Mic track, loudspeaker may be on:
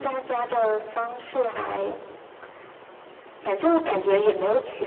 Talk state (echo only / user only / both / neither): echo only